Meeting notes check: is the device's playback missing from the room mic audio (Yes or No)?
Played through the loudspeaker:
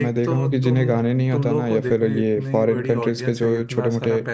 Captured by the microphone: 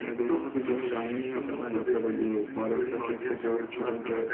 No